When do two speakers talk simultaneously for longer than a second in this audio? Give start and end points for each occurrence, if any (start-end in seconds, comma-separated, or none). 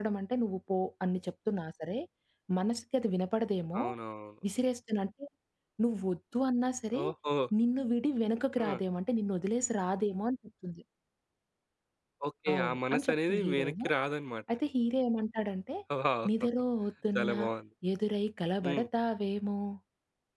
12.5-13.9